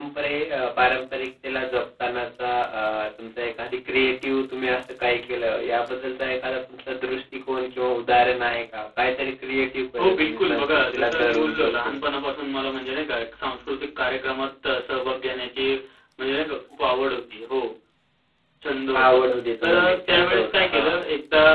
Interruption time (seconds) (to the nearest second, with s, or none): 10 s